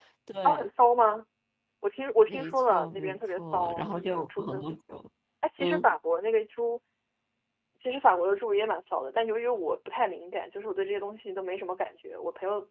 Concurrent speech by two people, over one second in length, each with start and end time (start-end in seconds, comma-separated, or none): 2.3-4.6